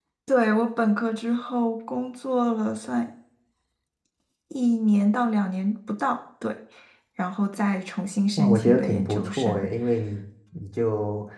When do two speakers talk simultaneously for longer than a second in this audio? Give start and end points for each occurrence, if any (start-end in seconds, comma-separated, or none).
8.4-9.7